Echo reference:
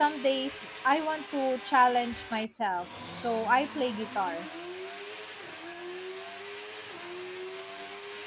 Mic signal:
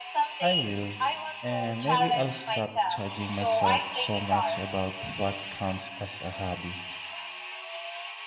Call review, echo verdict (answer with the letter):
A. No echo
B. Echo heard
B